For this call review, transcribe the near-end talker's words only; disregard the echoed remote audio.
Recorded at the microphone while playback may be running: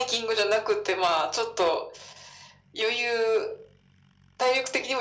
none

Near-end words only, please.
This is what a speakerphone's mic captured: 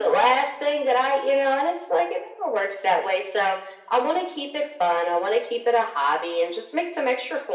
none

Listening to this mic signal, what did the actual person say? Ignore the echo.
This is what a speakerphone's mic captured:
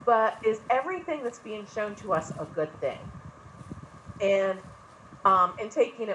none

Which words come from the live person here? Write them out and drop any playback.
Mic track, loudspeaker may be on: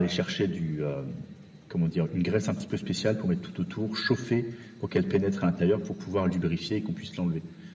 none

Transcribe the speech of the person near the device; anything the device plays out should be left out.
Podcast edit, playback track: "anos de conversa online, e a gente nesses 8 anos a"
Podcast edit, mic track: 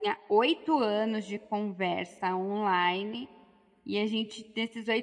none

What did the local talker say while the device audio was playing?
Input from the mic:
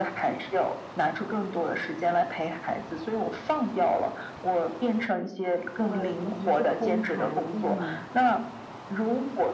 对，感觉是空谈，嗯。

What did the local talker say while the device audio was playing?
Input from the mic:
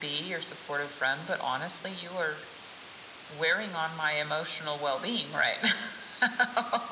none

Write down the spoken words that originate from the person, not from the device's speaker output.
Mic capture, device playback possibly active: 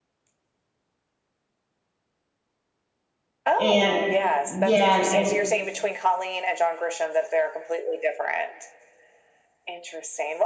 and Yeah, and and

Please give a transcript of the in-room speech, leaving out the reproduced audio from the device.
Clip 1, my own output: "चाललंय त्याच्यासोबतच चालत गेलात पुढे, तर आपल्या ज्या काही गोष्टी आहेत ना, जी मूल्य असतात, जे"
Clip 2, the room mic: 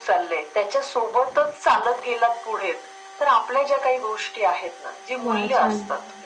वाह! छान.

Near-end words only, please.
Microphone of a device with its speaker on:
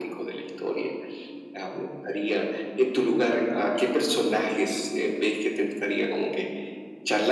none

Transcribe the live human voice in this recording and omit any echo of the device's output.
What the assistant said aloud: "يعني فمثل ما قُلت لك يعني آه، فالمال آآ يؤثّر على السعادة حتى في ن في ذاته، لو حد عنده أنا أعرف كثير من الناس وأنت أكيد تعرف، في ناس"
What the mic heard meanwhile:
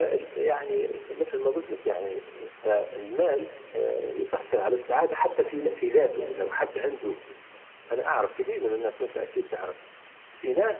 none

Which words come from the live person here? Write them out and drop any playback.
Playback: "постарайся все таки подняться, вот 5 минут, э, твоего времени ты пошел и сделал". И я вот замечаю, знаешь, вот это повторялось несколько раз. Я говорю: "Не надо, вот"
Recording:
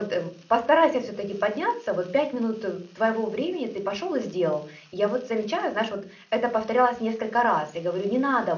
none

